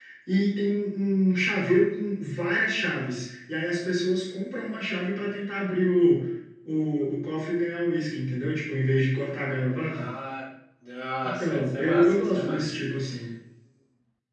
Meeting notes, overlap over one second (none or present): present